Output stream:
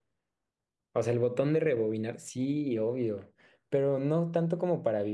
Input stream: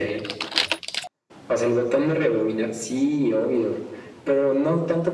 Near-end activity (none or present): none